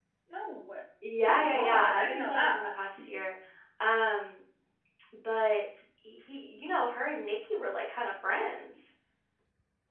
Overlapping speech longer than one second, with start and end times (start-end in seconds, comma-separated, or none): 1.2-2.7